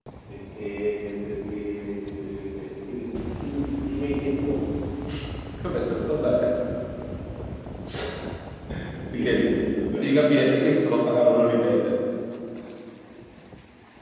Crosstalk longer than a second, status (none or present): none